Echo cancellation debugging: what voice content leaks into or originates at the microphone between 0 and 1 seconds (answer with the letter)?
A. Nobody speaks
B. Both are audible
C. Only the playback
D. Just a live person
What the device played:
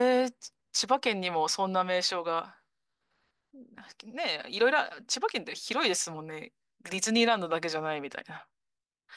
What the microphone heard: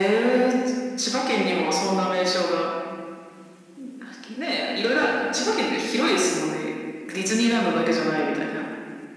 C